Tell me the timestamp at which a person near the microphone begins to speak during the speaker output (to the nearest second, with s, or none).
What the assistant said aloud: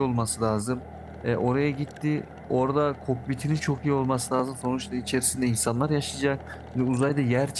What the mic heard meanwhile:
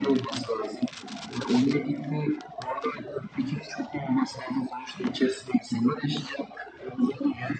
none